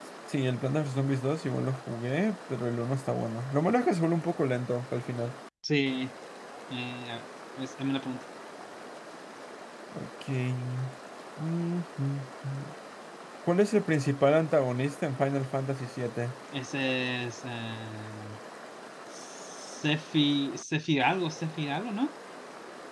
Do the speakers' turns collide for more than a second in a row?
No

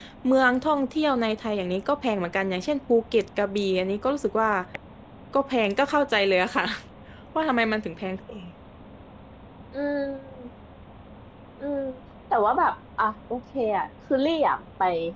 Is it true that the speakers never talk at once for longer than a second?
Yes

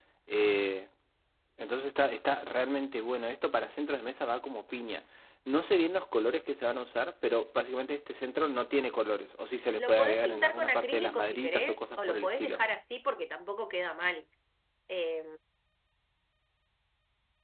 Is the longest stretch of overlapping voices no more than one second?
No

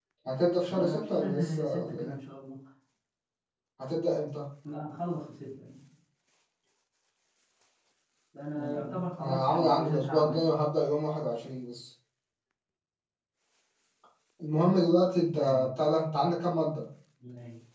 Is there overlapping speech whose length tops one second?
Yes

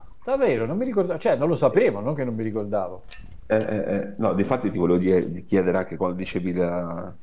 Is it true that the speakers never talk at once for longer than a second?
Yes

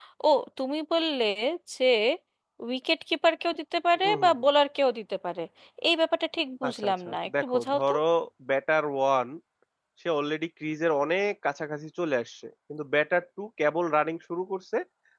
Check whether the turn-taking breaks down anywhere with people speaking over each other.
Yes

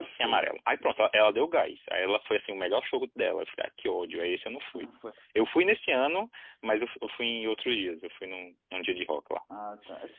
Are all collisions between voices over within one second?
Yes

